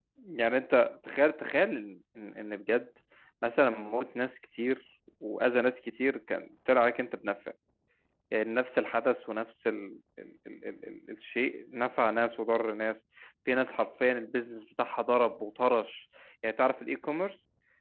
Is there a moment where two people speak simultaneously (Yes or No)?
No